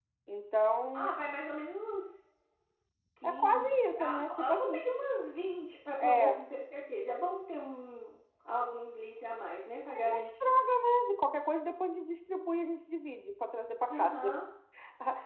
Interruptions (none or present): present